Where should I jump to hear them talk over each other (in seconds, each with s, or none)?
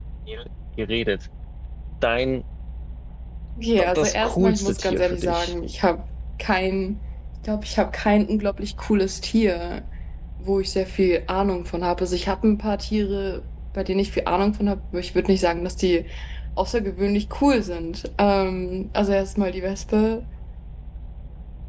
3.8 s